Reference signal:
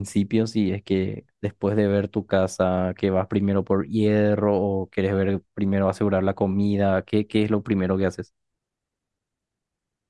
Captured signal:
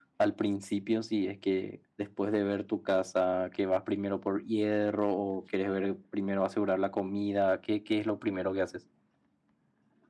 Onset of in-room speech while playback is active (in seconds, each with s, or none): none